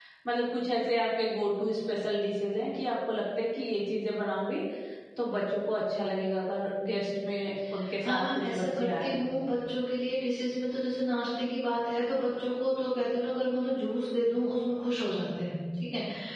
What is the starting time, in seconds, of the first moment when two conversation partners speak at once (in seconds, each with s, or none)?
8.0 s